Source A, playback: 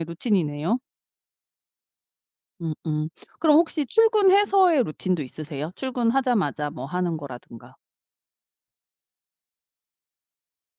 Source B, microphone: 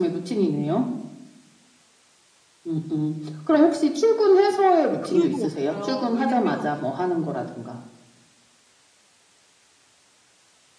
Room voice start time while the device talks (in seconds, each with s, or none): 5.0 s